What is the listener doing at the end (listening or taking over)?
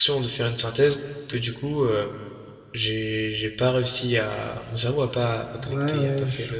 taking over